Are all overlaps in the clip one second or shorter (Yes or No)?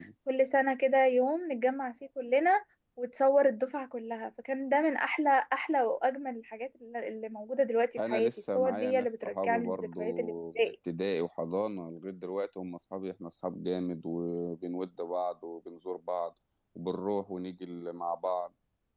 No